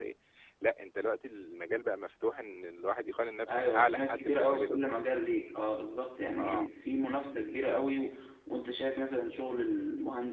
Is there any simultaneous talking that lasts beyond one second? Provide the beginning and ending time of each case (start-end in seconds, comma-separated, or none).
3.5-4.8